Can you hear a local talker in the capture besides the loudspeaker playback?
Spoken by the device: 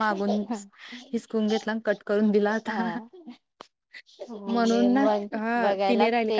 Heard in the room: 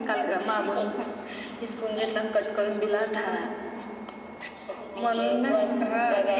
No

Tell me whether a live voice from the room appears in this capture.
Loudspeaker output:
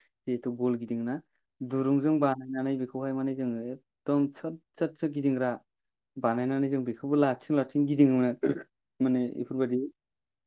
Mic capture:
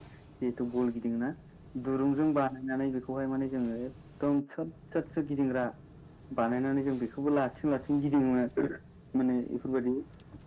No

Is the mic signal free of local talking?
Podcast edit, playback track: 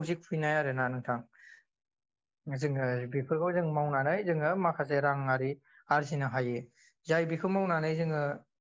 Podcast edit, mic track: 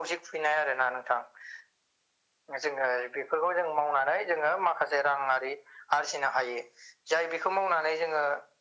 Yes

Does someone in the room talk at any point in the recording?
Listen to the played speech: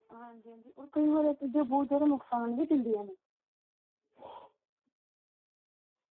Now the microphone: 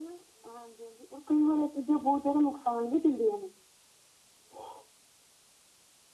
No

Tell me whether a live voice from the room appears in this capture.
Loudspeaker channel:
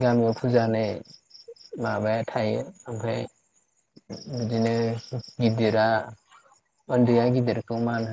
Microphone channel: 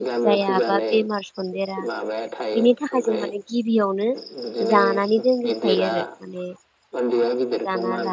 Yes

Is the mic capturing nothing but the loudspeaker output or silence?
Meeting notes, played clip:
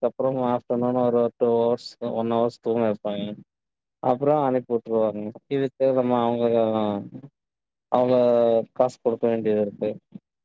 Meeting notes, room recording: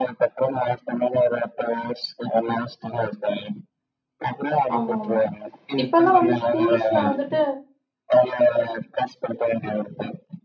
No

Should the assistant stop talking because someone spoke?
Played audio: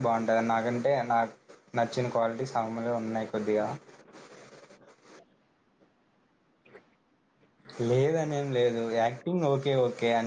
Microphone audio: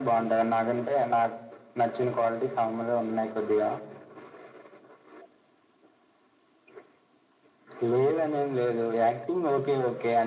No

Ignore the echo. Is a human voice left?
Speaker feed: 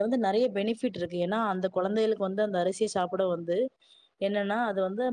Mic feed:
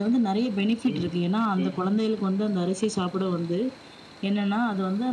Yes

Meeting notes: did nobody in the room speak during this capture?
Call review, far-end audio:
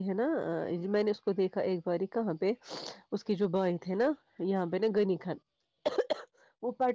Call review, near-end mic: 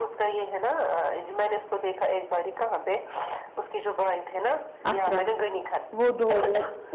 No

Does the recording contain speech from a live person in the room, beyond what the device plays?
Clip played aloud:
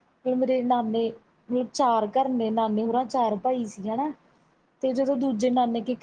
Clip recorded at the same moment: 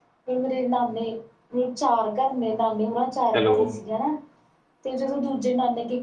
Yes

